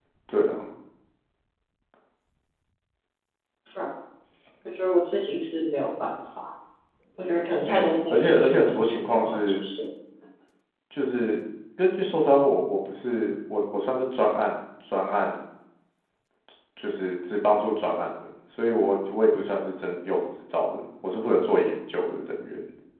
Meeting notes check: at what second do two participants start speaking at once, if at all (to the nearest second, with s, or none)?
8 s